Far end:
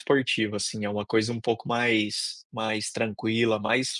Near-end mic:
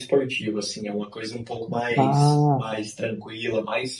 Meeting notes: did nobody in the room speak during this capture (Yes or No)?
No